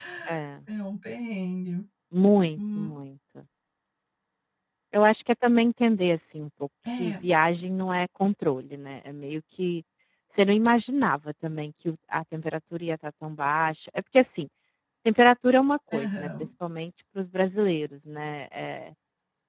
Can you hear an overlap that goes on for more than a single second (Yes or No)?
No